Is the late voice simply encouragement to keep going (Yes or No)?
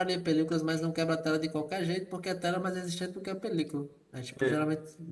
Yes